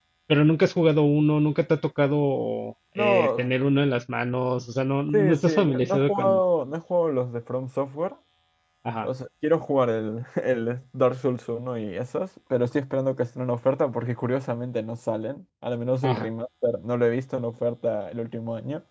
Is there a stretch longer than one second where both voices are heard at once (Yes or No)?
Yes